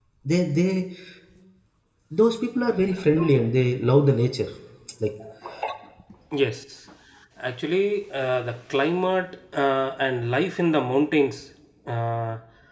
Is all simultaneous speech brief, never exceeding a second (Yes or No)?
Yes